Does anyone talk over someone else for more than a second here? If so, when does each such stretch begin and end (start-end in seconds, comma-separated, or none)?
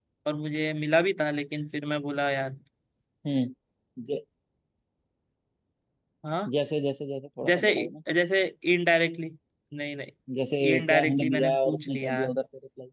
10.8-12.3